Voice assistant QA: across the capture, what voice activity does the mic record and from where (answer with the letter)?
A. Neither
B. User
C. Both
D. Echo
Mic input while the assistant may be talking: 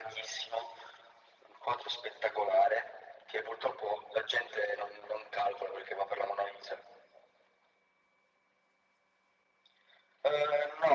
D